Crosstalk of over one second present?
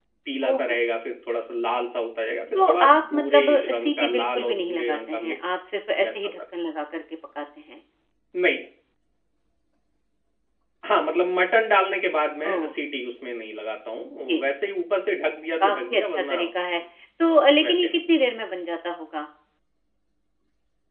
Yes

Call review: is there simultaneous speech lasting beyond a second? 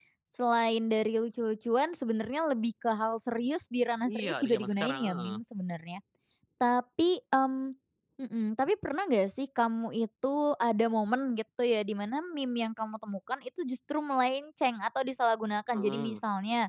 Yes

